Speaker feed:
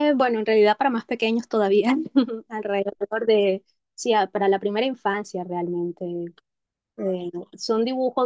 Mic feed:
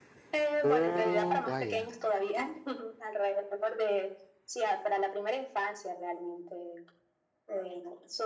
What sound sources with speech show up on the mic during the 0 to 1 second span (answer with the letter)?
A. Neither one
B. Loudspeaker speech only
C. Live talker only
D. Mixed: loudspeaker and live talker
D